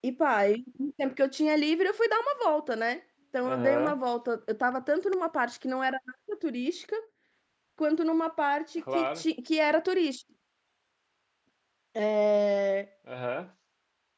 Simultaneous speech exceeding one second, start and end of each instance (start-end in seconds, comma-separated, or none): none